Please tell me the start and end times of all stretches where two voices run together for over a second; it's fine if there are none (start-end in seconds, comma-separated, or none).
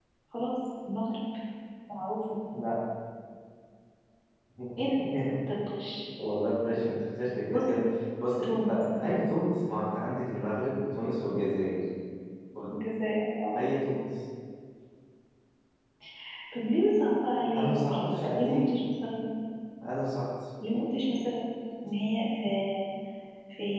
17.5-18.8